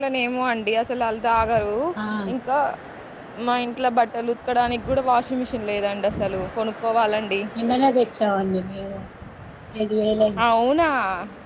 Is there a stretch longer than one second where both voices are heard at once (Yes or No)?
No